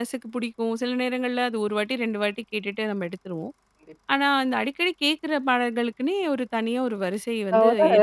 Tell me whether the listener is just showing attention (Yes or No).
No